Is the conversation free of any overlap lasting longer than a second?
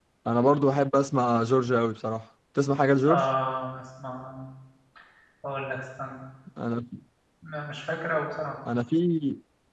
Yes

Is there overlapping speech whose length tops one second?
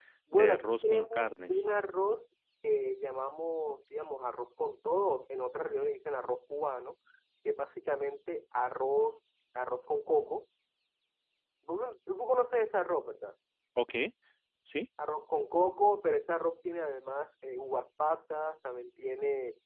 Yes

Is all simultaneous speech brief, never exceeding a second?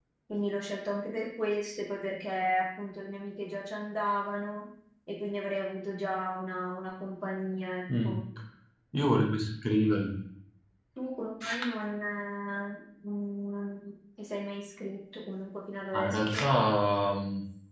Yes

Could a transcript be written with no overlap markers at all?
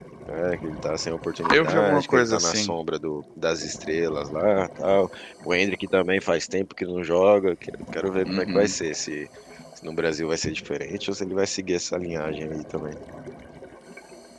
No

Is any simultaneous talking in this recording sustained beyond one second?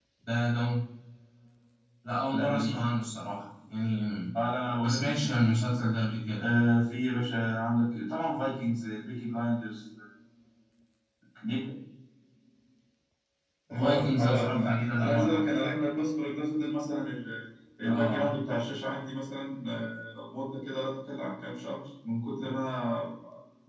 Yes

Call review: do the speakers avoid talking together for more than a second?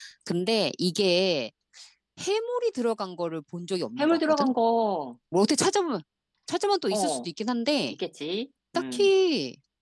Yes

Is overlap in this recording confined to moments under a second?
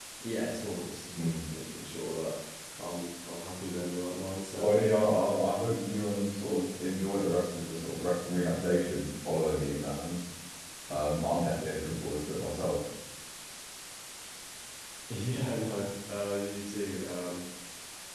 Yes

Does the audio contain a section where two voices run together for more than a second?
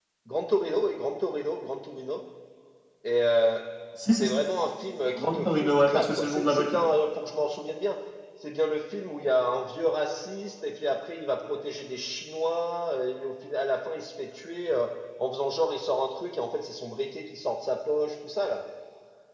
Yes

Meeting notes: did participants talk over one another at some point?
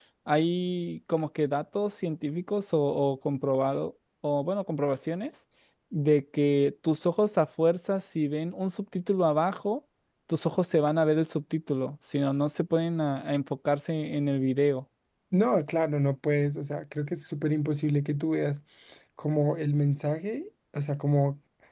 No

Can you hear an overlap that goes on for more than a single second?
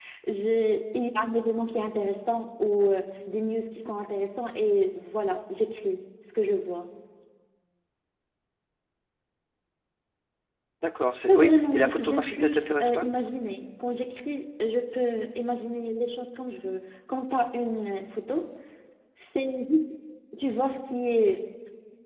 Yes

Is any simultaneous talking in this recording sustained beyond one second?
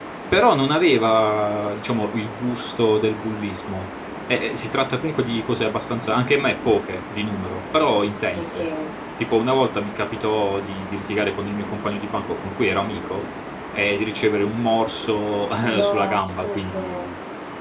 Yes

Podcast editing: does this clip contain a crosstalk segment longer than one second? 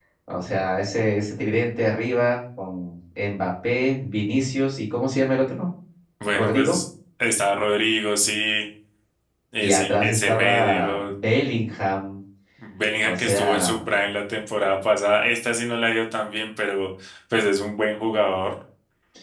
Yes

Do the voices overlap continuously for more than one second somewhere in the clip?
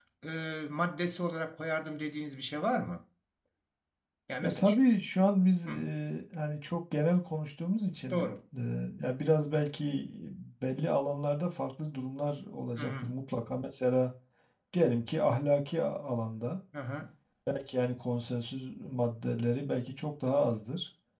No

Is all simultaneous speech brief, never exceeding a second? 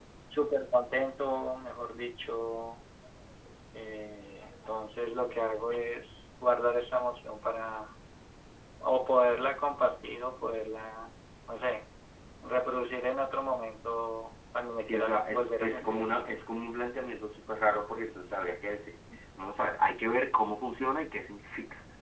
No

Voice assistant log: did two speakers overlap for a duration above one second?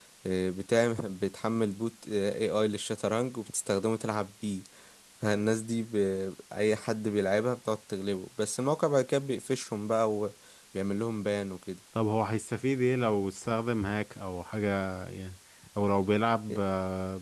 No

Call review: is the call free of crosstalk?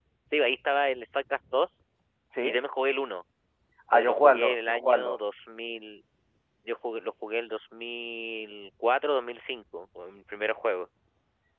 No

